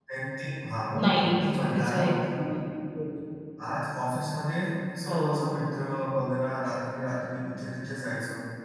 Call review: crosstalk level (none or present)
present